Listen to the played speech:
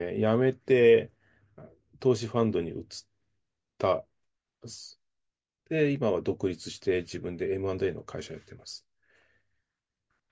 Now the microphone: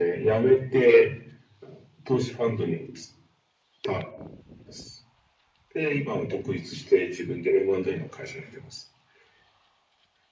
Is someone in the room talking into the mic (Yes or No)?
No